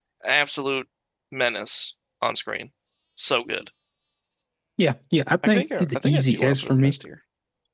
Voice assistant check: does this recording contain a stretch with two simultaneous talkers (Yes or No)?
Yes